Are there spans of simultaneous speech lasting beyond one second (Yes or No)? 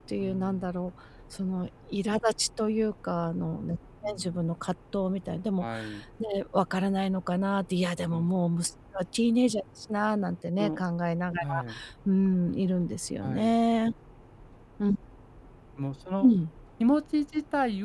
No